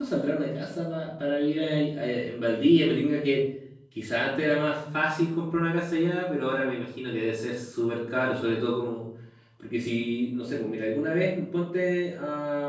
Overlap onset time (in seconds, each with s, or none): none